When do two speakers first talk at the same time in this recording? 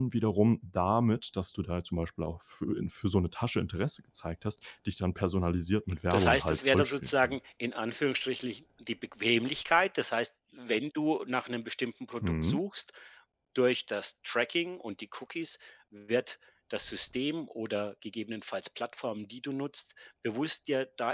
6.1 s

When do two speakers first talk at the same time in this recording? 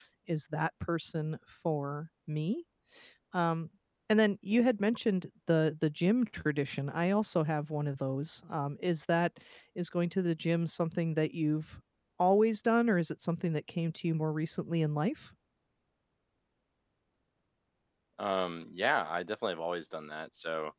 none

